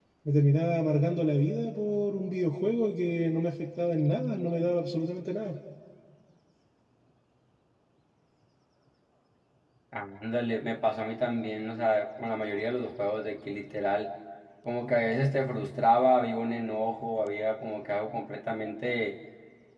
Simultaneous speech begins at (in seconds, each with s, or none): none